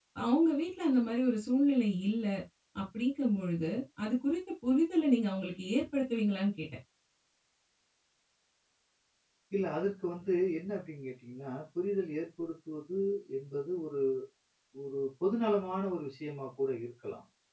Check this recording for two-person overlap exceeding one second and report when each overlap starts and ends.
none

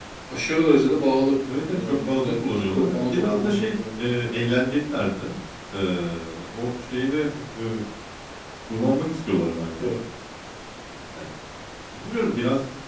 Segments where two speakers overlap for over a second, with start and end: 1.7-4.1

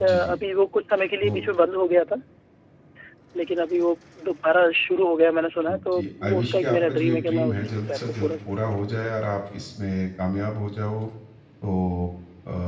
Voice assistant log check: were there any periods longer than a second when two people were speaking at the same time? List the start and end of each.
5.9-8.3

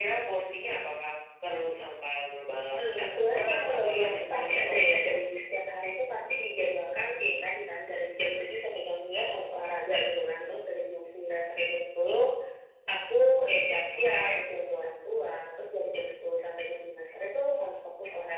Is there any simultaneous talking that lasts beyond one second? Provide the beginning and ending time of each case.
2.8-5.2

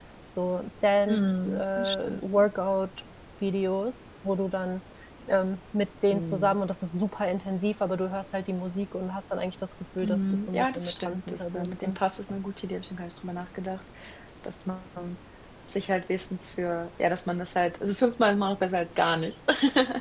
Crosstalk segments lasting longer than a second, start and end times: 1.1-2.4, 10.0-12.0

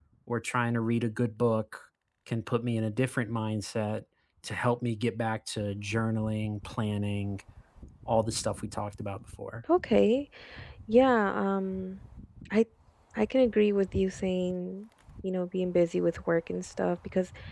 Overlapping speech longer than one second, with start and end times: none

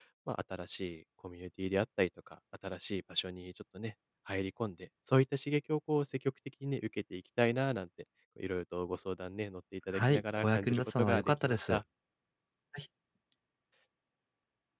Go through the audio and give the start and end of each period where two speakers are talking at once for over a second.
9.9-11.8

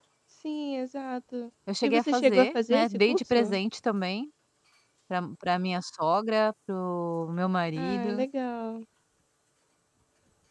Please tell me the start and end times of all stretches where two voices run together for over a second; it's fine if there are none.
1.8-3.6

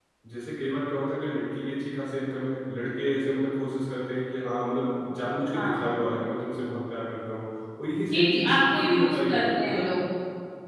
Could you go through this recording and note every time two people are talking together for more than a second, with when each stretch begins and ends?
8.1-9.9

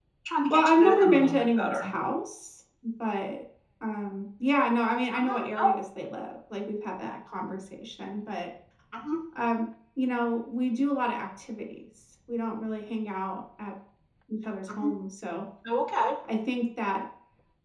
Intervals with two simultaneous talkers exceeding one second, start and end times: 0.5-1.9

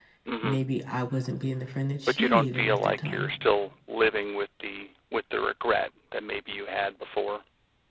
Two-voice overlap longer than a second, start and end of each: 2.1-3.3

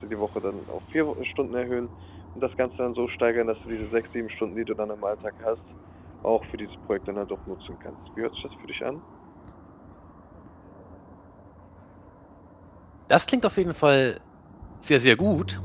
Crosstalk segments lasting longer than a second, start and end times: none

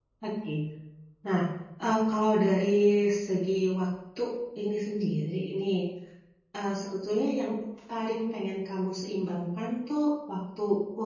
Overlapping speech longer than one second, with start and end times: none

